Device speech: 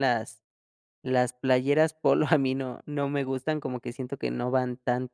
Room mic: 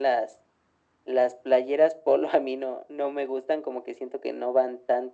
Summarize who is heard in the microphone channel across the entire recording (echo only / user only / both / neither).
echo only